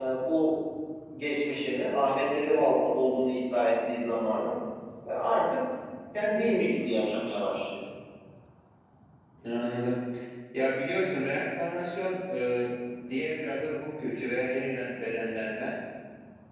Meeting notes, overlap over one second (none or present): none